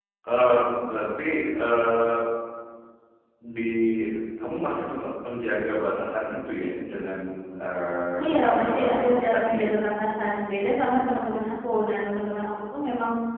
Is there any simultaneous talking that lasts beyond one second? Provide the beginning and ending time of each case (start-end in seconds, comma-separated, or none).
8.2-9.7